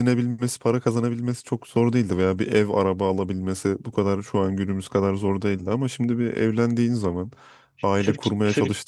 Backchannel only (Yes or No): No